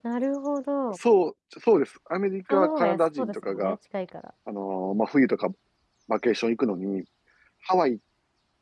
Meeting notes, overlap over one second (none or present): present